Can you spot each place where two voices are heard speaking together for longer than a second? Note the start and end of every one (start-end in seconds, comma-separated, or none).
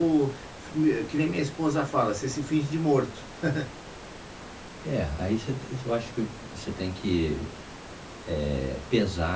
none